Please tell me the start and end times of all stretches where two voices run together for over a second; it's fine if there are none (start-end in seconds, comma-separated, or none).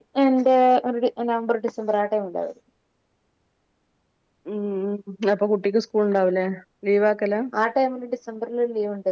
none